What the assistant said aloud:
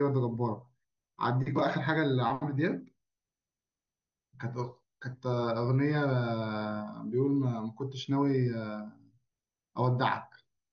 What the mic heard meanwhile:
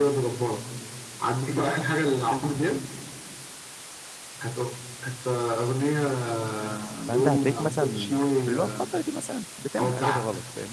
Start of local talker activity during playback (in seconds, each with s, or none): 7.1 s